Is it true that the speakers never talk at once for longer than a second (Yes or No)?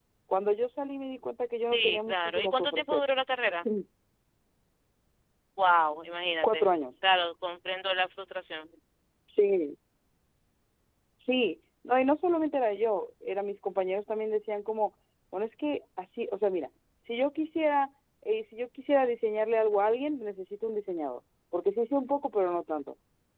No